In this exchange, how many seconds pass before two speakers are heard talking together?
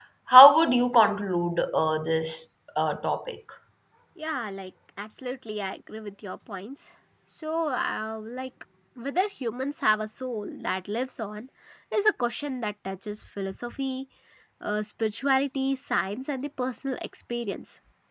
none

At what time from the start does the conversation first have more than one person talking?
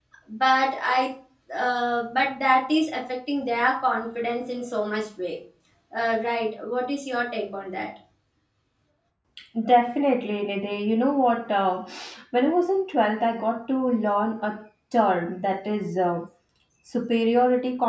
none

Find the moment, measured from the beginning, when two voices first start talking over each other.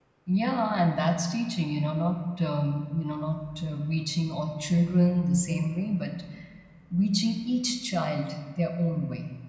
none

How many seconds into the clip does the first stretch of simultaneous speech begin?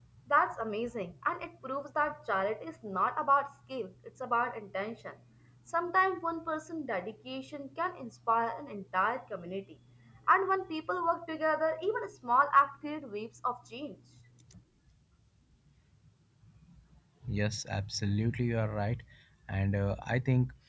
none

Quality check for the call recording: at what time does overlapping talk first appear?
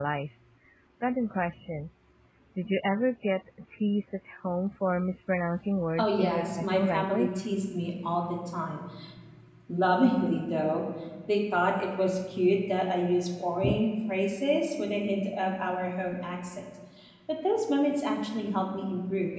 6.0 s

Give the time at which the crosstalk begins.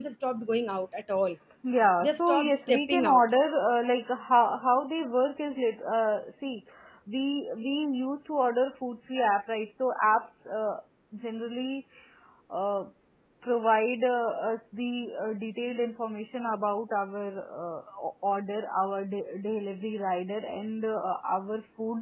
2.0 s

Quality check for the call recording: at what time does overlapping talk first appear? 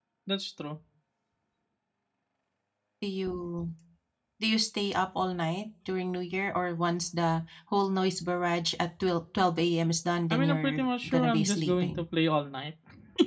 10.3 s

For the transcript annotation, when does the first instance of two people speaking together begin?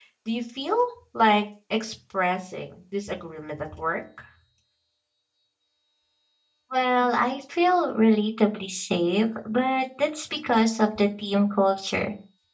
none

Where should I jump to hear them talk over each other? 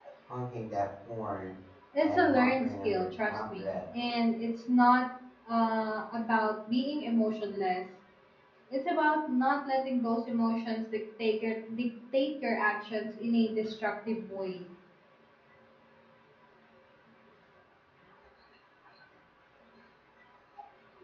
2.0 s

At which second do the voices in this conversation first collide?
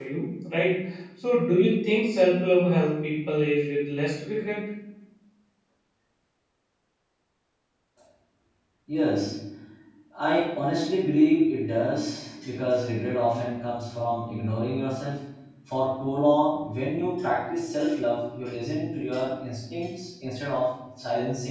none

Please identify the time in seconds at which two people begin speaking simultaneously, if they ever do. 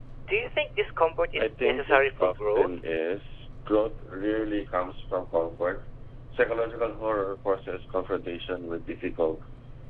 1.4 s

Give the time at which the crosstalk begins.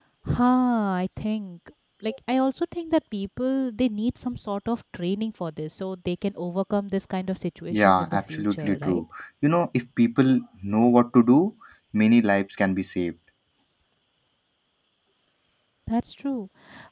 7.7 s

